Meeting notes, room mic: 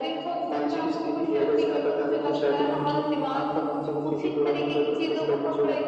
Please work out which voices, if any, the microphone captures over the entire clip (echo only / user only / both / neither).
echo only